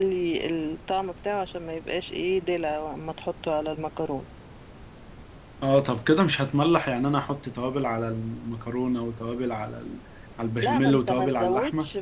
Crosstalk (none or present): present